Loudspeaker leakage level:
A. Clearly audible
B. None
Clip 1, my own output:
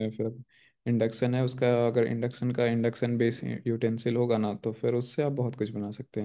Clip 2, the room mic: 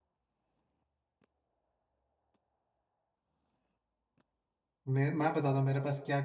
B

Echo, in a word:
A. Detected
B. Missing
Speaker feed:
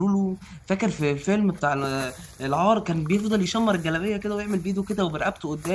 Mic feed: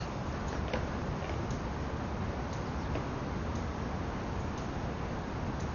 B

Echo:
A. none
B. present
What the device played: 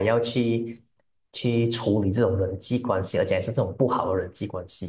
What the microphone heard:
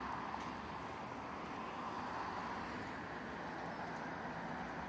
A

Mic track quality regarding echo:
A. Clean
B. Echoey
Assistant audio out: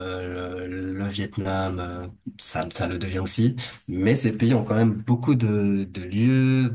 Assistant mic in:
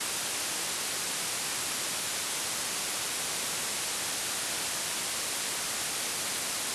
A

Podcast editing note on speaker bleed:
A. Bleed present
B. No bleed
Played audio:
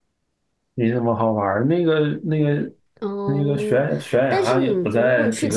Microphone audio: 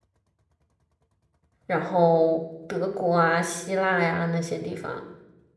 B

